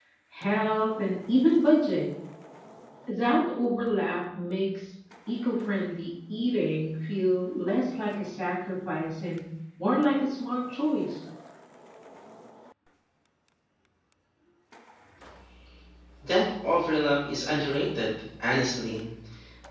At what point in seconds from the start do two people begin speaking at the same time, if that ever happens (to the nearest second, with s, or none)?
none